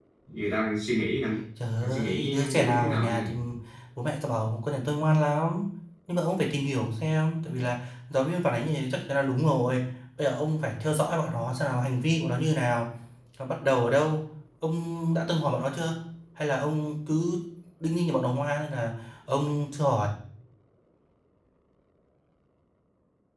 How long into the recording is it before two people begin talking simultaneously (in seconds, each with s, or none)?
1.8 s